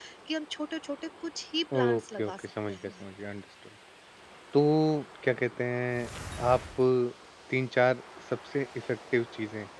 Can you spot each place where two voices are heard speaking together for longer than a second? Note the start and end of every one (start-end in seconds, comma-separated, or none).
1.8-3.1